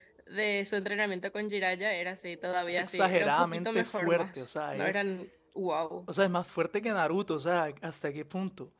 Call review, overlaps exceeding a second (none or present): present